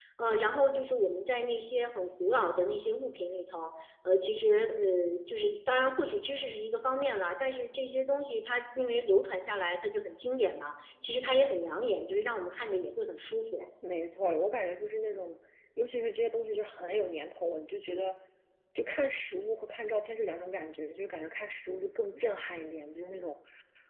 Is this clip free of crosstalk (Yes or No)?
Yes